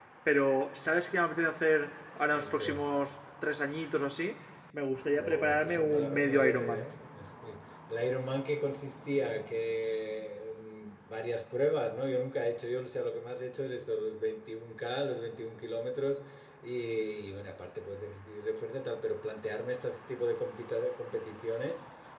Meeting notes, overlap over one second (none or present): present